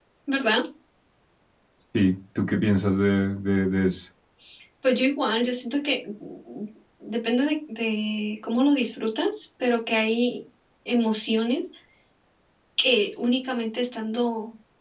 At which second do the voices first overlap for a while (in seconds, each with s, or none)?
none